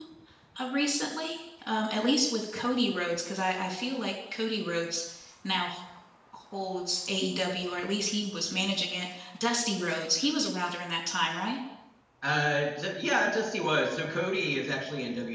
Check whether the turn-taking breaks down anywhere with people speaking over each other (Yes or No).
No